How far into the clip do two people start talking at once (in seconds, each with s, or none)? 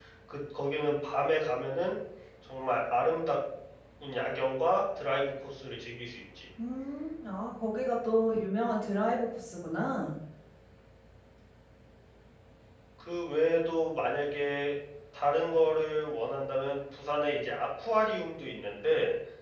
none